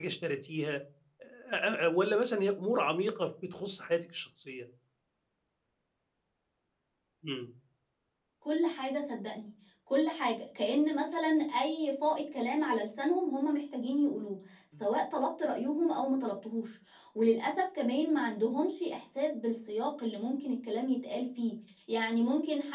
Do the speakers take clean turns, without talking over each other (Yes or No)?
Yes